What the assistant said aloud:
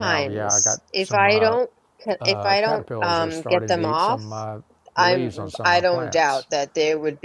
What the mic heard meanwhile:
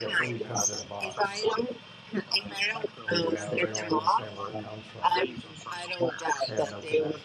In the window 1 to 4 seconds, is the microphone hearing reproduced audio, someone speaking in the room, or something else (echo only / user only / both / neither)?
both